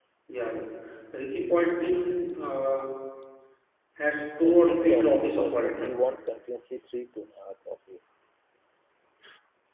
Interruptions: present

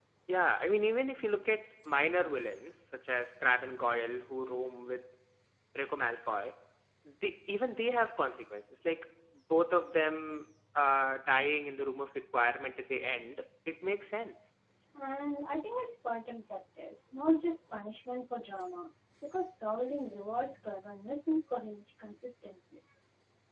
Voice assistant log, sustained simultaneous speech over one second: none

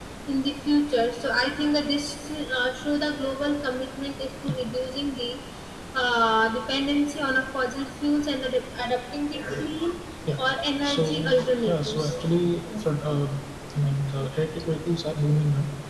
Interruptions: present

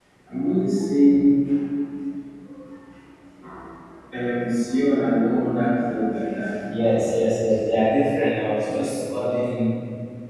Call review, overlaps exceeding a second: none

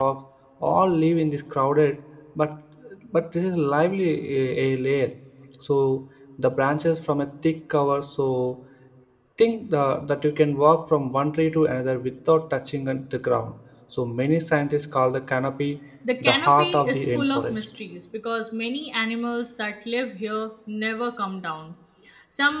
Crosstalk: present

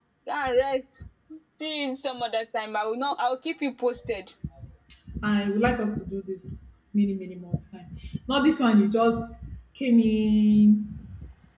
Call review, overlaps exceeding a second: none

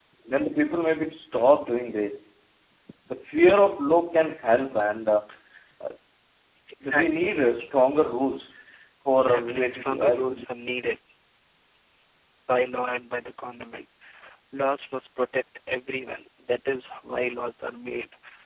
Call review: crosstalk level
present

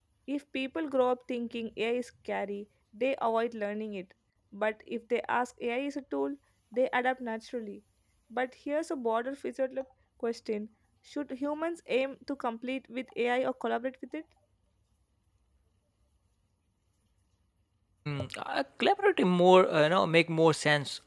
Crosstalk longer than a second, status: none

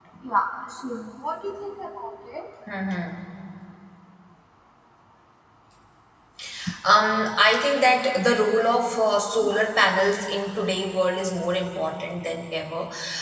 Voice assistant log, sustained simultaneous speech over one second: none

